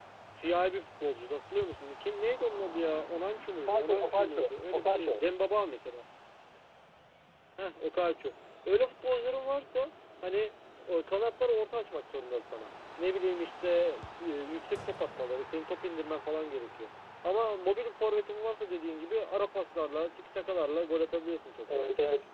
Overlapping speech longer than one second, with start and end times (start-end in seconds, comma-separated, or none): 3.7-5.2